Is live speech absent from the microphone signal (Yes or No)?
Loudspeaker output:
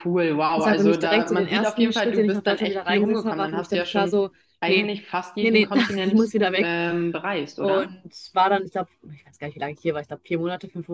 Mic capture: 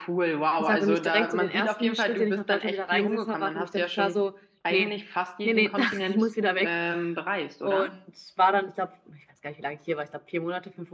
Yes